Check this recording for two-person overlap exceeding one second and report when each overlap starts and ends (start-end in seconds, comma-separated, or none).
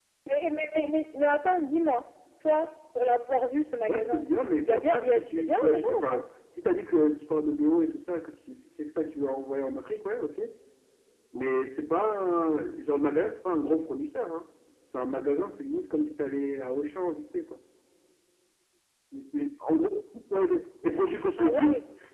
3.9-6.2